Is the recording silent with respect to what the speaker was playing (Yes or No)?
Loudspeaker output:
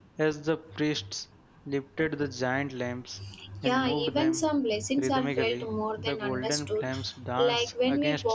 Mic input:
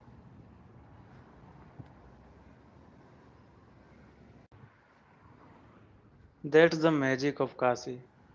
Yes